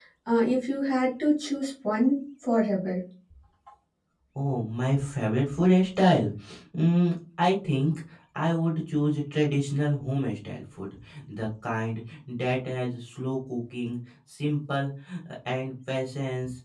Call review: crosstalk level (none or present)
none